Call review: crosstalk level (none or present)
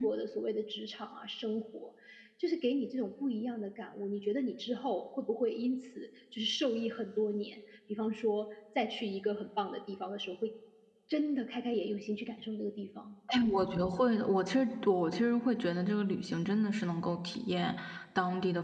none